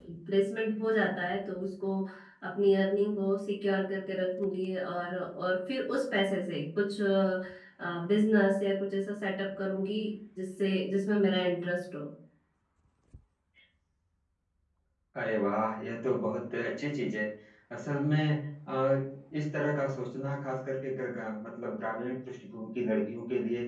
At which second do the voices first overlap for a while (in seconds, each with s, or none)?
none